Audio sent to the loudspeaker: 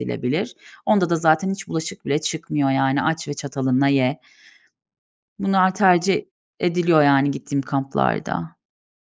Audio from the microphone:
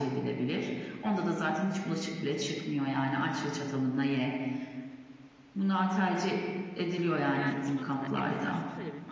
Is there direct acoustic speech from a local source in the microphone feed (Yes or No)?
Yes